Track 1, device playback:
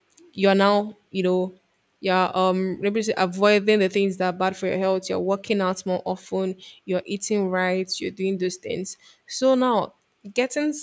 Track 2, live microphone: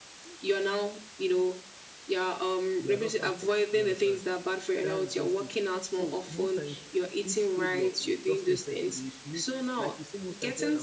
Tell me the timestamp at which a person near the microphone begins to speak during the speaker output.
2.8 s

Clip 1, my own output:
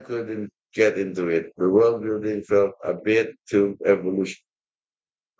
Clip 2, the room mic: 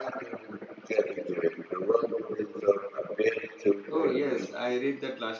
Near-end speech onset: 3.9 s

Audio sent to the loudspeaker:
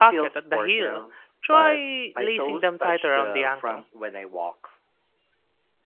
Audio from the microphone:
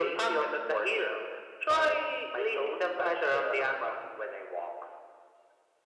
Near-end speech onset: none

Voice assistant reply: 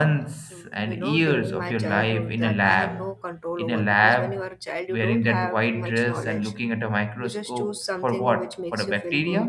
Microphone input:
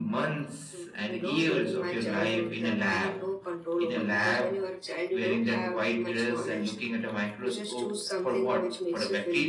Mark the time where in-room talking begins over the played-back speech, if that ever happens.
none

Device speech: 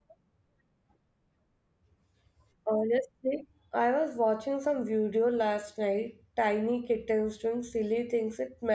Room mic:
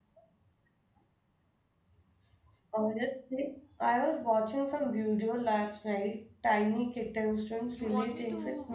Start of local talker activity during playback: 7.7 s

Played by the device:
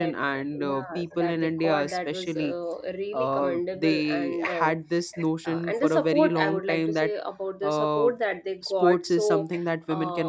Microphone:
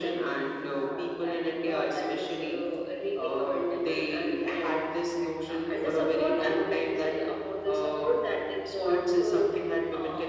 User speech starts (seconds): none

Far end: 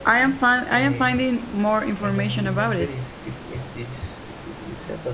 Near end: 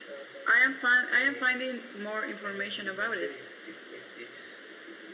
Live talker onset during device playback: none

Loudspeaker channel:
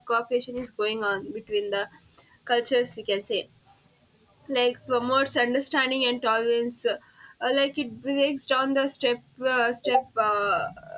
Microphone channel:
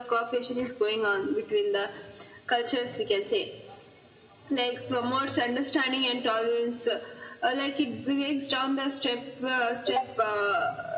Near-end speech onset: none

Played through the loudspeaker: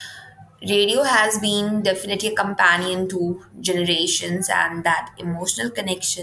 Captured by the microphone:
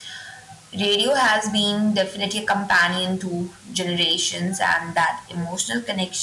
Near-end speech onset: none

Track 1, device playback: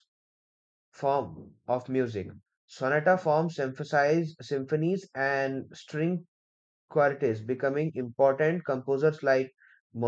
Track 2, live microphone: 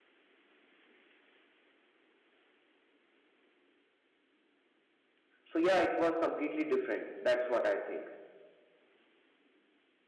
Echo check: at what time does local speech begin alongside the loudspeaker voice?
5.4 s

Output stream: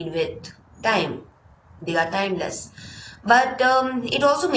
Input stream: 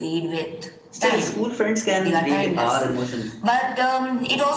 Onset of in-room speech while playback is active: 0.9 s

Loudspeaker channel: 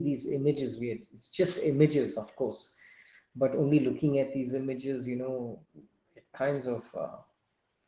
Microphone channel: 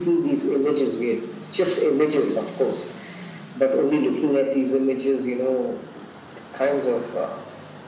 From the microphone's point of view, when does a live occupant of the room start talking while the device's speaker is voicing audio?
none

